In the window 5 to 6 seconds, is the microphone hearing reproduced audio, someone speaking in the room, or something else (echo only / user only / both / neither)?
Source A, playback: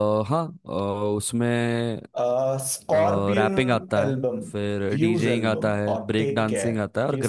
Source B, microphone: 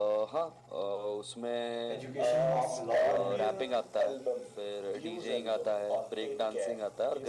echo only